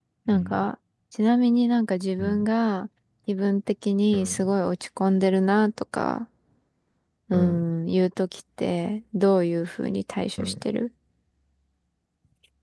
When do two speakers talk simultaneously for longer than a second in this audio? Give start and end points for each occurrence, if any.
none

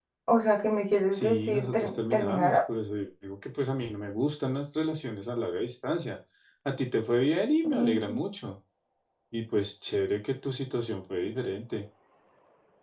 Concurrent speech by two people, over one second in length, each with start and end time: 1.1-2.6

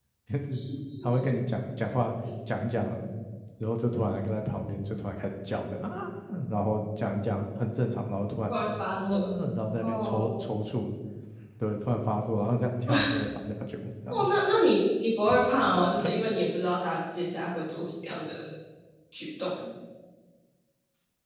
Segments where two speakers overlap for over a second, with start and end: none

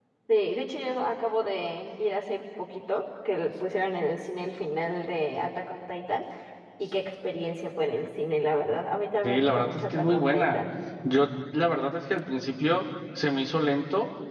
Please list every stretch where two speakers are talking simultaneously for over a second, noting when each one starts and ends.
9.2-10.6

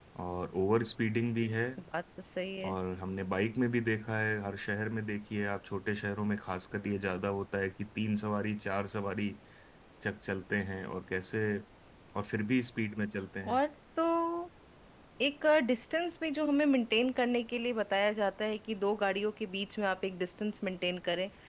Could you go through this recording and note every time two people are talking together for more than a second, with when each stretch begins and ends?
none

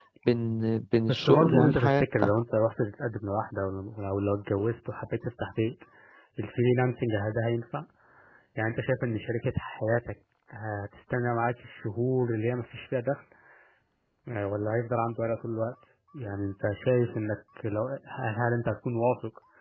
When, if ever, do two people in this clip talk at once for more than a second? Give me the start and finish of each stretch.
1.1-2.3

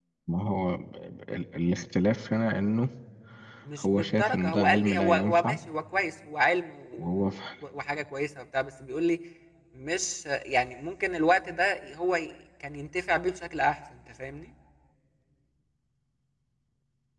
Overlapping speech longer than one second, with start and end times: 3.8-5.6

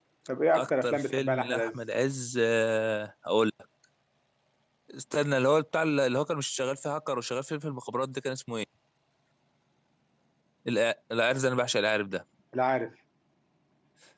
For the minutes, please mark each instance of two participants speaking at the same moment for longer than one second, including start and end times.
0.5-1.8

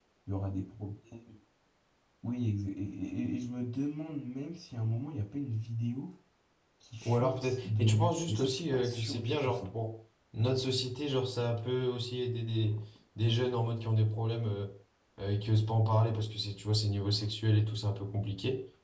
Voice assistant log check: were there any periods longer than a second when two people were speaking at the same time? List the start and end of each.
7.0-9.7

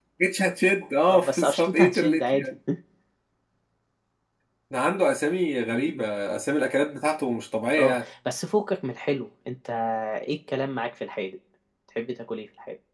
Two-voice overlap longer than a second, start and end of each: 1.1-2.4

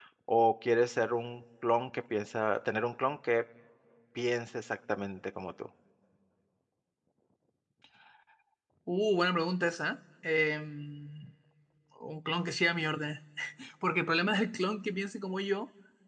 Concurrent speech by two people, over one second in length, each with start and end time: none

